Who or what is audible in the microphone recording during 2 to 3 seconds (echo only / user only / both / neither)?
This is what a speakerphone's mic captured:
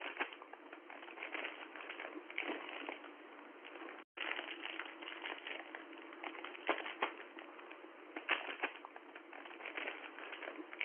neither